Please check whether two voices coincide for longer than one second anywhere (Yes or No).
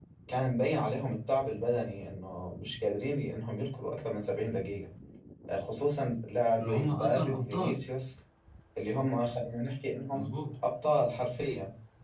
Yes